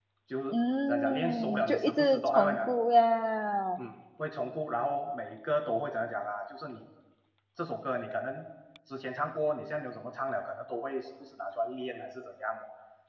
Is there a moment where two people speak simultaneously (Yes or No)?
Yes